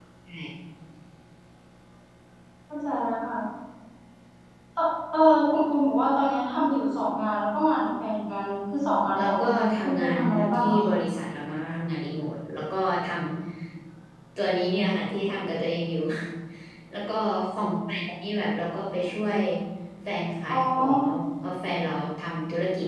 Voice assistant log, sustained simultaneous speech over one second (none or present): present